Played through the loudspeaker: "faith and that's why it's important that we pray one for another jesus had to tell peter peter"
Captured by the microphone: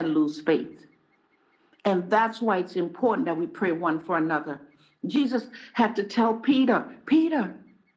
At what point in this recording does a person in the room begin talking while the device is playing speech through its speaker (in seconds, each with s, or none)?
none